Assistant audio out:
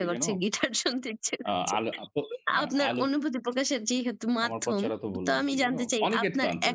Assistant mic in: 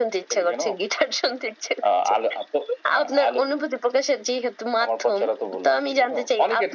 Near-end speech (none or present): none